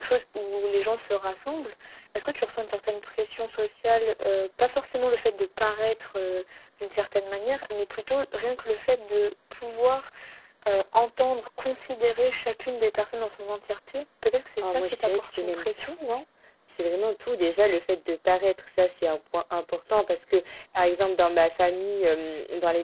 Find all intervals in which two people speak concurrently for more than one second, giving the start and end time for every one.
14.6-15.9

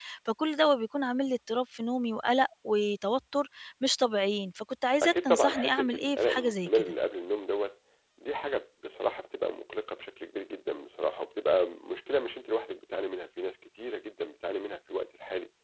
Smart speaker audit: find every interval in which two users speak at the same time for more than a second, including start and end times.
5.0-6.9

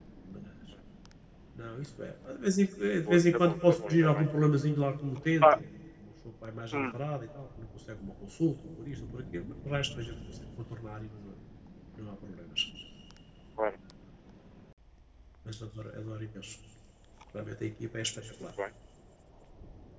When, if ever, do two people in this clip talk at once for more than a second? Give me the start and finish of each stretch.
3.1-4.3

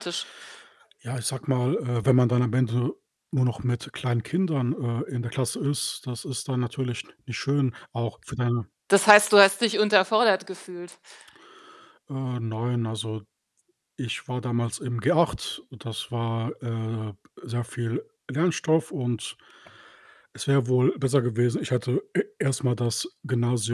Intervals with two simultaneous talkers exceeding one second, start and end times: none

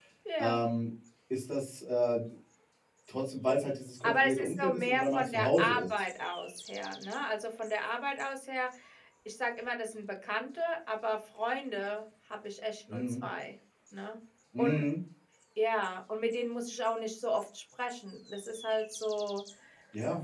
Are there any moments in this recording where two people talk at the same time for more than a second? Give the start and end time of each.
4.0-5.9

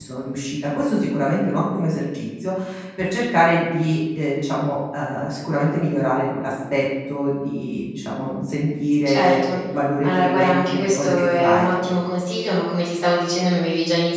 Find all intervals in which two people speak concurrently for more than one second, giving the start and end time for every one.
10.0-11.7

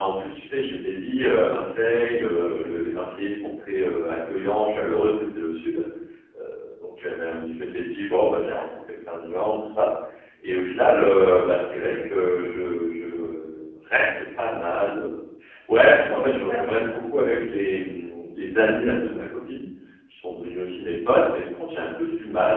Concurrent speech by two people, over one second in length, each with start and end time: 15.8-17.0

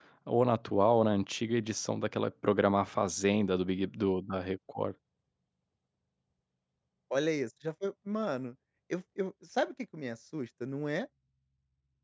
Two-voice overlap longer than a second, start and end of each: none

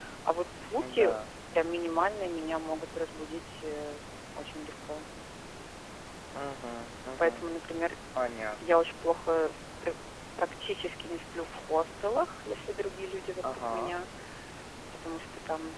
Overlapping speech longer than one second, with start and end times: none

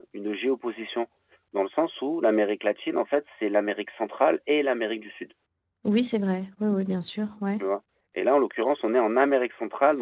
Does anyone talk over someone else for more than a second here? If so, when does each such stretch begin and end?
none

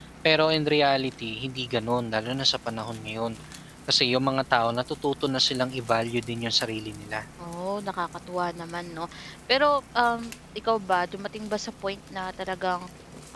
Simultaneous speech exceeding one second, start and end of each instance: none

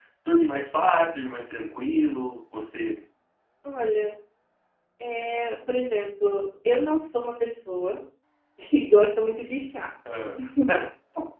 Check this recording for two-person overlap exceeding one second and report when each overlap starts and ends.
none

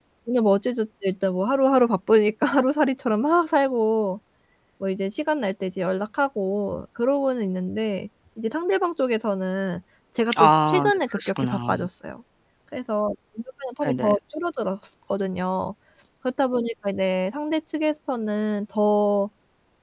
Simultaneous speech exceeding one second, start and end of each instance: 10.4-11.7

